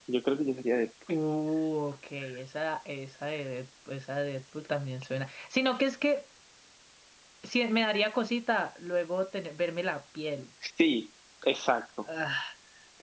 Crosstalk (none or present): none